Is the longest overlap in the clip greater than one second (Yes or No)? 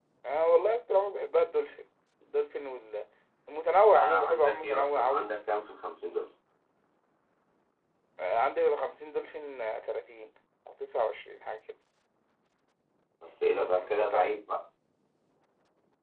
Yes